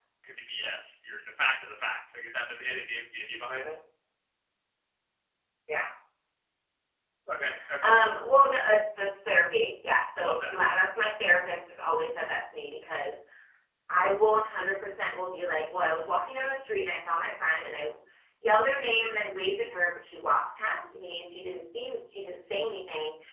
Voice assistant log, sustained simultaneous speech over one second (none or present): none